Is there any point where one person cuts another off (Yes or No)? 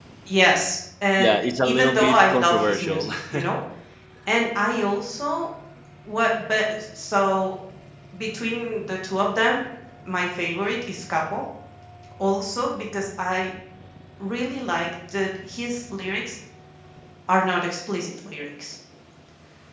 Yes